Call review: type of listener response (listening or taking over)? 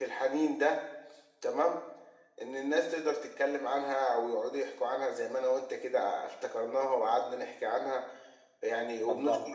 listening